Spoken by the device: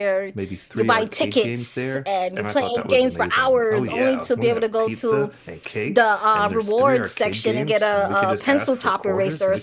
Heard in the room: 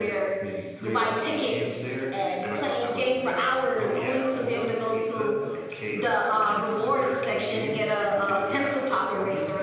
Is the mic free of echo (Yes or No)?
No